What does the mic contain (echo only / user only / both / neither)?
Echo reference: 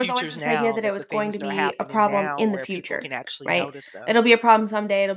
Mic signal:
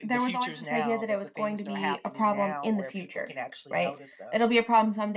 echo only